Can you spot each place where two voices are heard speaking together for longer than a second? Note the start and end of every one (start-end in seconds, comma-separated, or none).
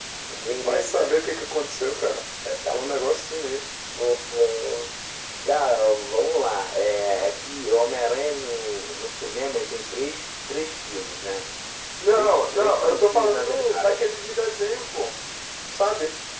12.1-14.0